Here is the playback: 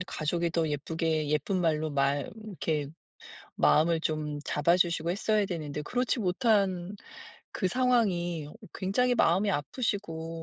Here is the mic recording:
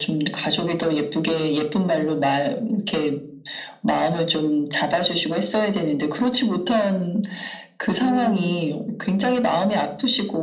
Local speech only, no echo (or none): 의문